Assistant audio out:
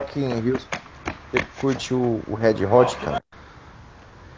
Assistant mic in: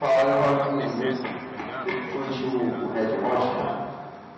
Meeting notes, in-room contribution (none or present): present